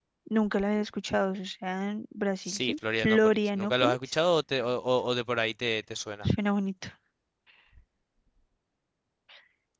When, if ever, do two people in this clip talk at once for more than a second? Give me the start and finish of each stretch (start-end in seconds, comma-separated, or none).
2.4-4.2